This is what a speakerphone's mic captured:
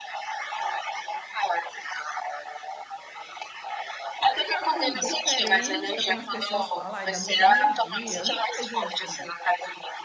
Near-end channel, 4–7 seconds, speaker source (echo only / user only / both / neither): both